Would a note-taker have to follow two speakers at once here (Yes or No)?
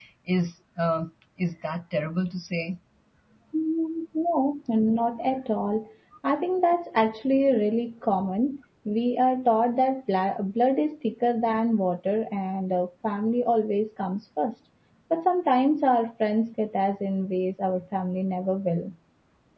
No